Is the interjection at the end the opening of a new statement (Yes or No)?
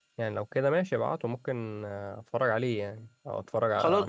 Yes